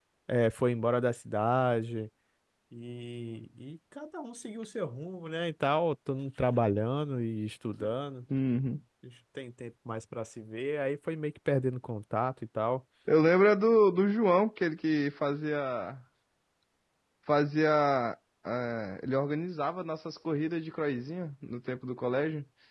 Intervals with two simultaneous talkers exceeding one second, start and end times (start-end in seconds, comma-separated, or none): none